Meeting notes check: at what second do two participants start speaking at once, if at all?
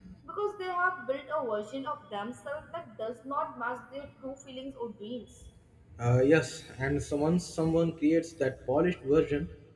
none

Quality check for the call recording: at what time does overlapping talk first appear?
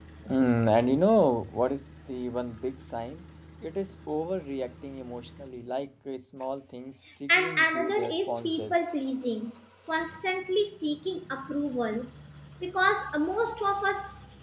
7.3 s

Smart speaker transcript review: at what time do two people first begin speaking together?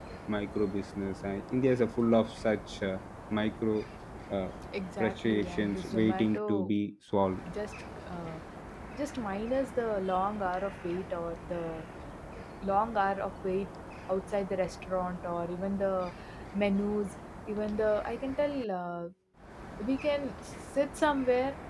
5.0 s

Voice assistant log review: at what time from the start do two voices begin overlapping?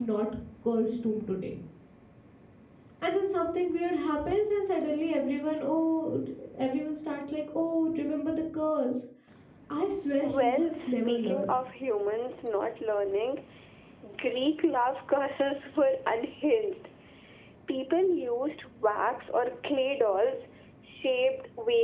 10.2 s

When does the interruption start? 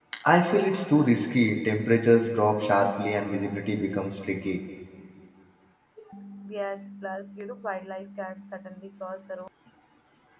none

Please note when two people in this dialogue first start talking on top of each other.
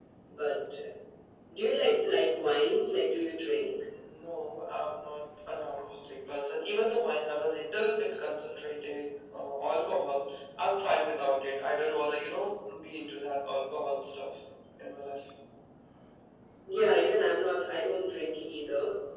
none

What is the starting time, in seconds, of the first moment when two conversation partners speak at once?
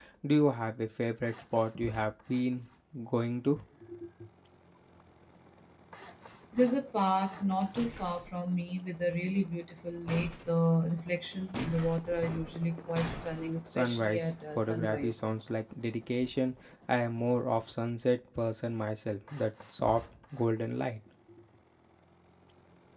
13.7 s

